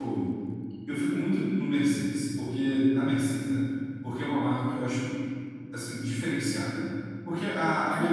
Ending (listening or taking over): listening